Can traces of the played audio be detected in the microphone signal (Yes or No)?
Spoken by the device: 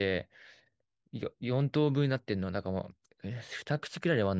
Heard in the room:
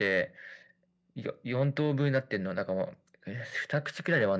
Yes